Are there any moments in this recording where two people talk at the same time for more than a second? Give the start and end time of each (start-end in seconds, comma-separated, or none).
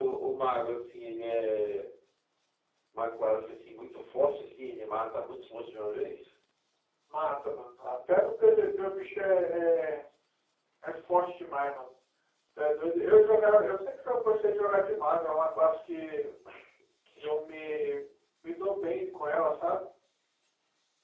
none